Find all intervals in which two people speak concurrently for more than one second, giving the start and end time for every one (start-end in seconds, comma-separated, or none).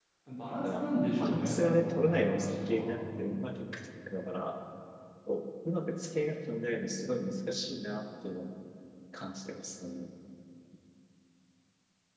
0.6-2.9